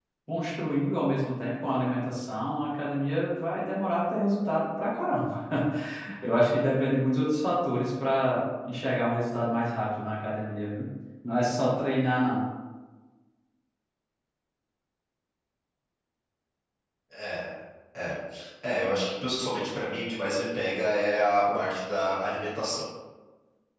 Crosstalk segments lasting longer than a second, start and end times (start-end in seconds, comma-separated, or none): none